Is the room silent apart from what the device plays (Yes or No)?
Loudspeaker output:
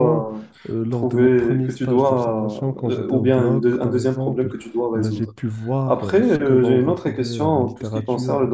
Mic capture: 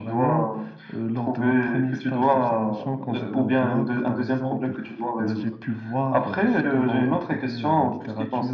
Yes